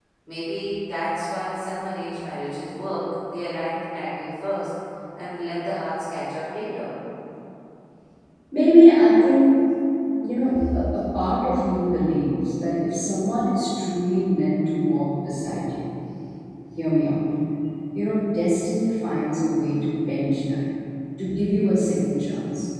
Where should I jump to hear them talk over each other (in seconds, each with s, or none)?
none